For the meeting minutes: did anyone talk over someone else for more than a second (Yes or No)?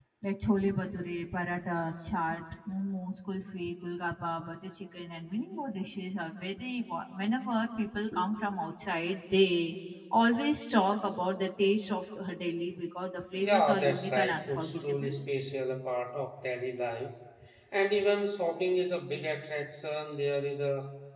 Yes